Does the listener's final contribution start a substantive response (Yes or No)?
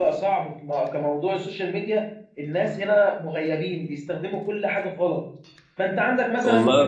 No